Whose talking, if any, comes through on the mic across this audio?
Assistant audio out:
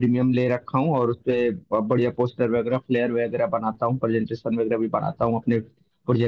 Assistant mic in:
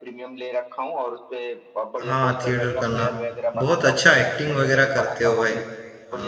both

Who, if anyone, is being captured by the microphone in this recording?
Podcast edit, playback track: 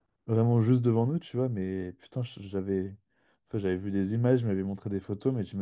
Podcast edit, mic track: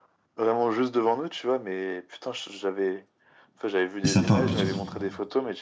both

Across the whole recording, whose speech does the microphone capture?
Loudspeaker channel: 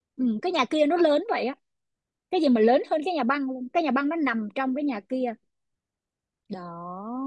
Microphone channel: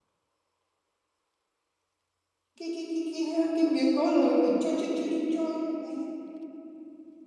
user only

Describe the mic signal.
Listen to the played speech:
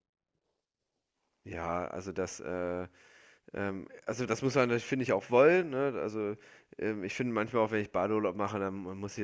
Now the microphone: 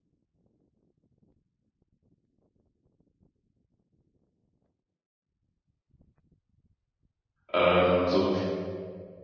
user only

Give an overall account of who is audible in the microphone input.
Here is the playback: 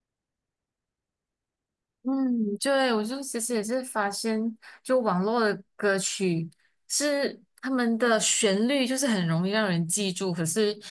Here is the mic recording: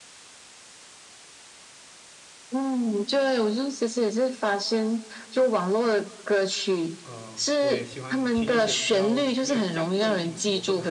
both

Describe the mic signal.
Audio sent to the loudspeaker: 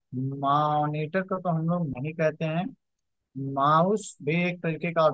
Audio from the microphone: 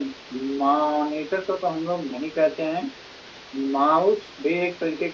echo only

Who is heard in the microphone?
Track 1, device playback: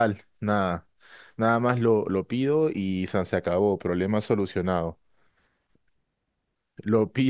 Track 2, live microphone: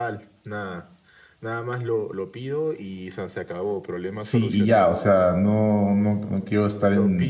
both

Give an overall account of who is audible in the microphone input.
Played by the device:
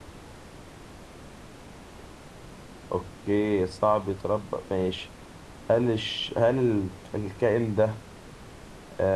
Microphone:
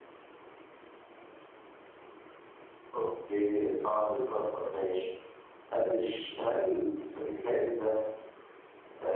echo only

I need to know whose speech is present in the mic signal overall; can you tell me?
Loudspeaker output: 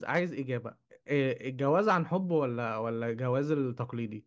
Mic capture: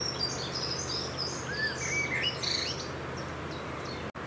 neither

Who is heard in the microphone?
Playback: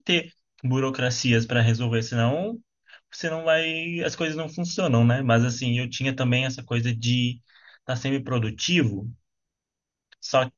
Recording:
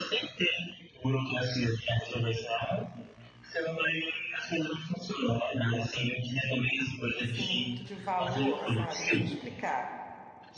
both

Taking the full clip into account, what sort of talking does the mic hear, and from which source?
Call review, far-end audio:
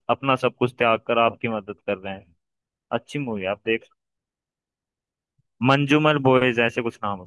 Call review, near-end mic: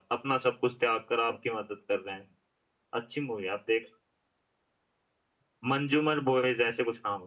echo only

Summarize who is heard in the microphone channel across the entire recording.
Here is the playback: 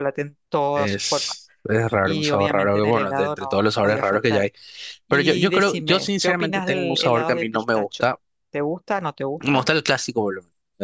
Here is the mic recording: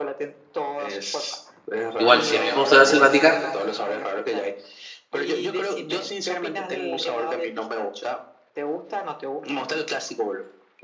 both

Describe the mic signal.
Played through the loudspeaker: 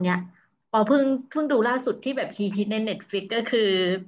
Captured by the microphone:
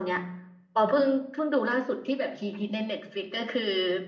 echo only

